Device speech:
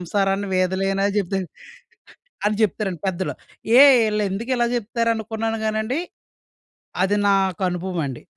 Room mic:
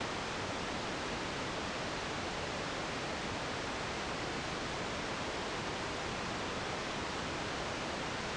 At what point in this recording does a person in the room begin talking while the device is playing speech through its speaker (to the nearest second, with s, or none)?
none